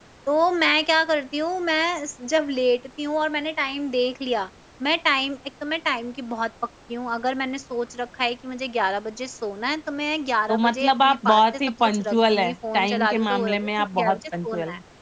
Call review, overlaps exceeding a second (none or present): present